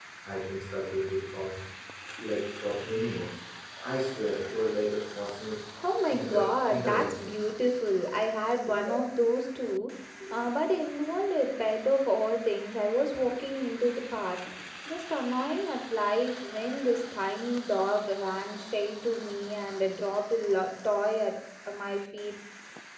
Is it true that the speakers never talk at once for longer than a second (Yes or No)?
No